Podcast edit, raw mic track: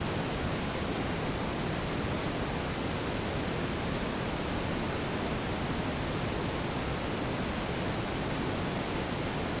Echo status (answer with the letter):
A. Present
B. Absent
B